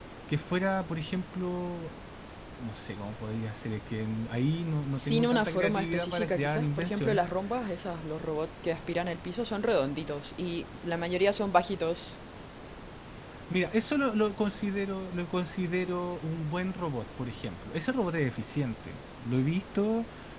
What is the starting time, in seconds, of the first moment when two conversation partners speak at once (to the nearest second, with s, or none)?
5 s